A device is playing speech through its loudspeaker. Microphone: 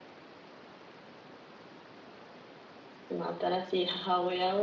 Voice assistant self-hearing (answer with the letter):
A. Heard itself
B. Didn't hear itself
B